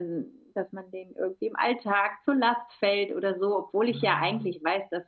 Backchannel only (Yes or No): Yes